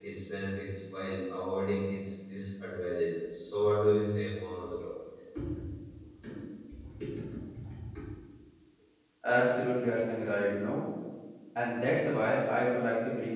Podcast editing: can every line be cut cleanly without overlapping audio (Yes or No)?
Yes